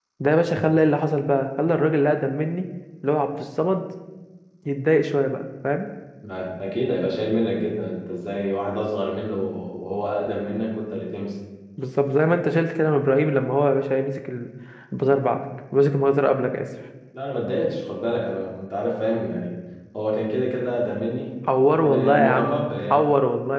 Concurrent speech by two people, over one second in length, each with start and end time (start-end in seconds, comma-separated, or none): 21.7-23.0